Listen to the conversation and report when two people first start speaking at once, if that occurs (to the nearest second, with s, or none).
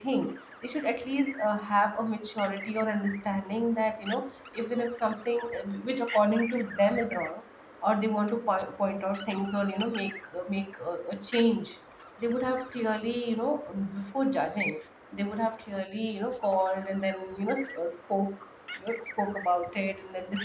none